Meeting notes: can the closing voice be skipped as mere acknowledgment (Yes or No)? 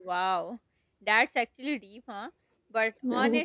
Yes